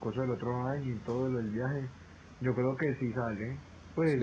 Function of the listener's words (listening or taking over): taking over